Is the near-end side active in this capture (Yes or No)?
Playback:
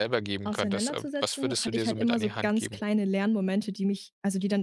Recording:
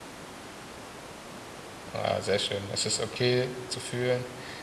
Yes